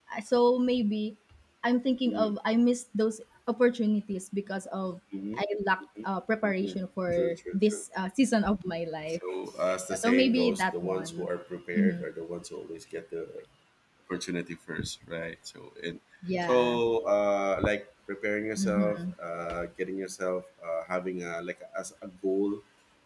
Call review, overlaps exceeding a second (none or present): present